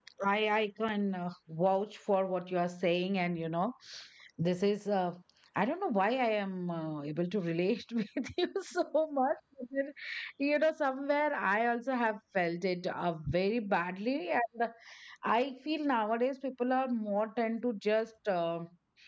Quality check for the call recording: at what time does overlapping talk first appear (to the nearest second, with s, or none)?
none